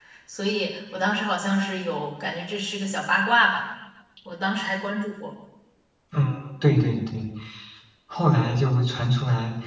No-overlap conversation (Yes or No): Yes